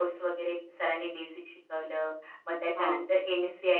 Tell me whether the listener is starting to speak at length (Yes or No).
No